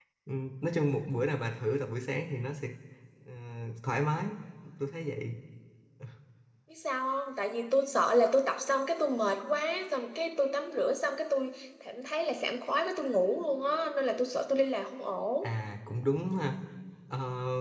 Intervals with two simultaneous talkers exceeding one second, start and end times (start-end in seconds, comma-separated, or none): none